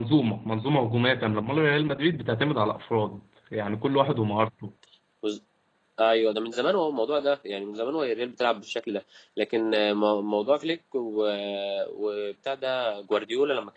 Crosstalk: none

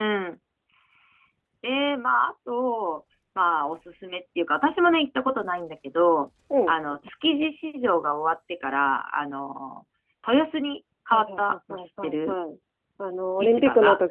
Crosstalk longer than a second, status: present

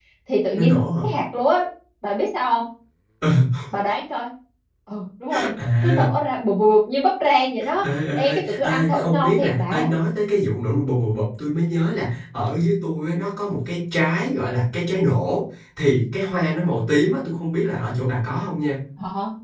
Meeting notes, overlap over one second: present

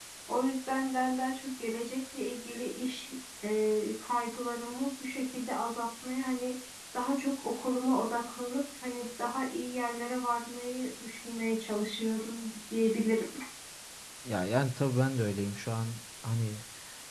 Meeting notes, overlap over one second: none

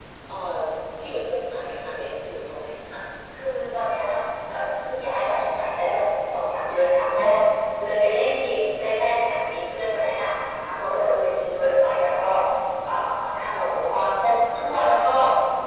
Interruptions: none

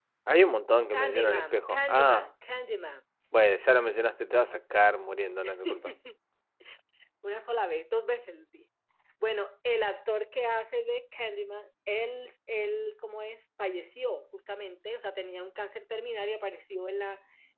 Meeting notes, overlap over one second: present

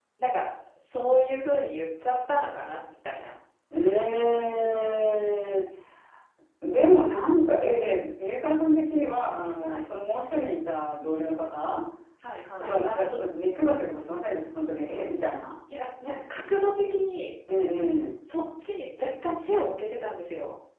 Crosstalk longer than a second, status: none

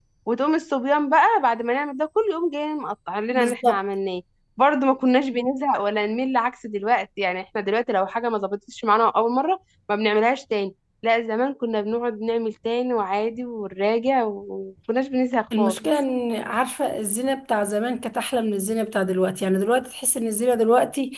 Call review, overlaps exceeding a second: none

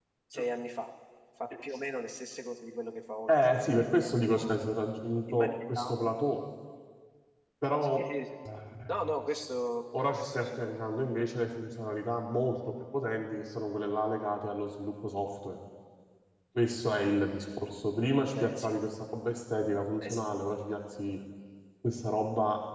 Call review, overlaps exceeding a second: present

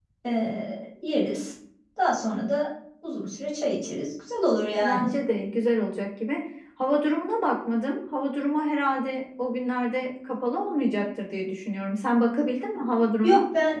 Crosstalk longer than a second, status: none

